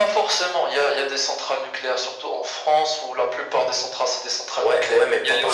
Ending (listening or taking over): taking over